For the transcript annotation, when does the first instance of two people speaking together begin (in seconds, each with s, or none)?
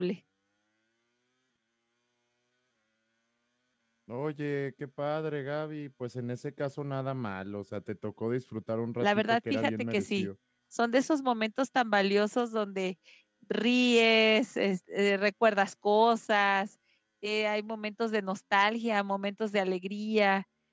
9.0 s